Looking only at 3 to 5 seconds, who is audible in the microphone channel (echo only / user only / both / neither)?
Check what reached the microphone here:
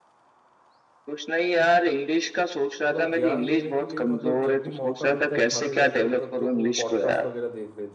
both